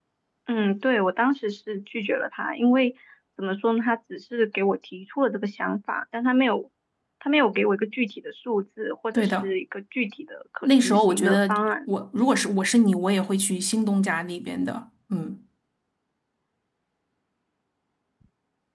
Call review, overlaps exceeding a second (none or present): present